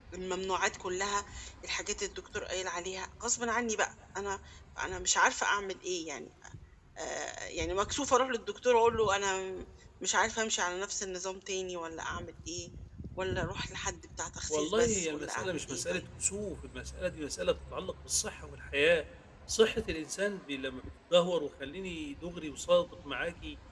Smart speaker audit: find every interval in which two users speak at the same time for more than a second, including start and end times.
14.5-16.0

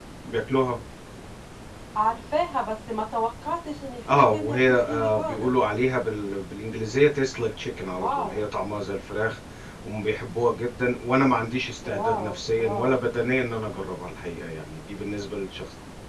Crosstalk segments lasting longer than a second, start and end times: 4.1-5.5

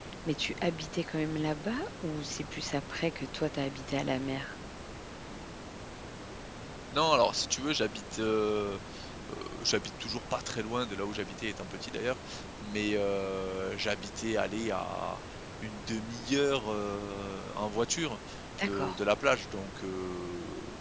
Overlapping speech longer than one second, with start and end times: none

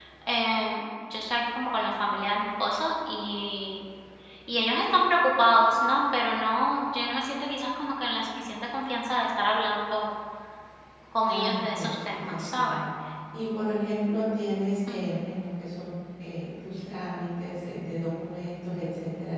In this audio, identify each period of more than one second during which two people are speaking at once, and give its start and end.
11.2-12.8

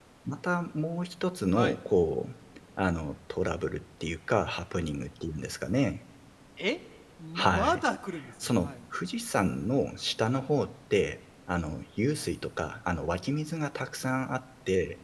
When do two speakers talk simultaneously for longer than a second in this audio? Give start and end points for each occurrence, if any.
none

